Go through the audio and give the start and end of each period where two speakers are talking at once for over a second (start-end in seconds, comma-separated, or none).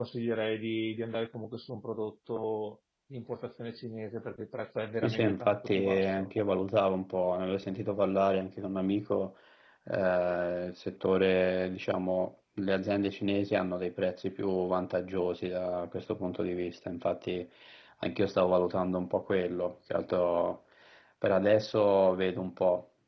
5.0-6.3